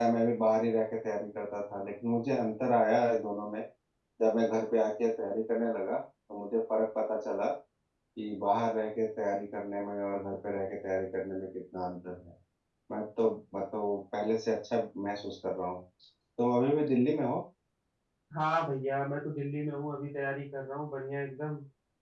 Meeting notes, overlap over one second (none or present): none